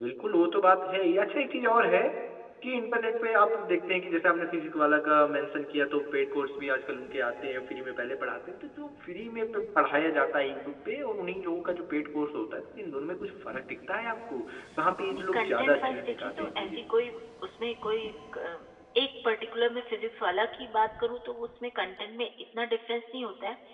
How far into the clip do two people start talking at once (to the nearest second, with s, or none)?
15 s